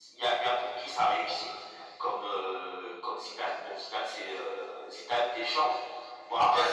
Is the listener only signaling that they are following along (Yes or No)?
Yes